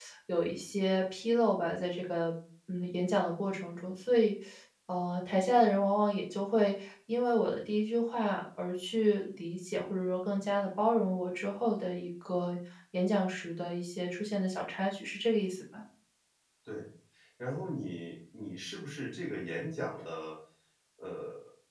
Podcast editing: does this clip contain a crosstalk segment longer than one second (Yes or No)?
No